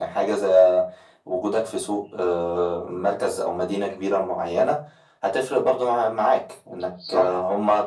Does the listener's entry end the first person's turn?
No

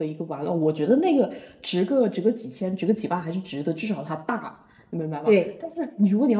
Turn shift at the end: No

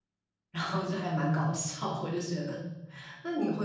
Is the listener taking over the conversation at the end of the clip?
No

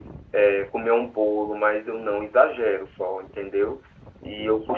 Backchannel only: Yes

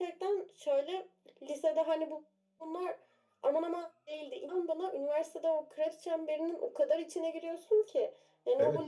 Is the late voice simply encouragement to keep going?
No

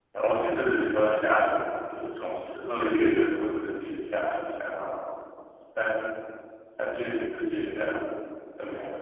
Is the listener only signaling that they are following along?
No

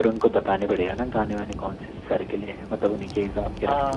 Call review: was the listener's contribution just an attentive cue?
No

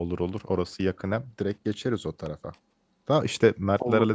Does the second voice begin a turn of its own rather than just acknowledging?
No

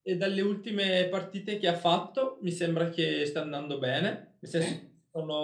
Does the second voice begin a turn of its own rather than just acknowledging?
No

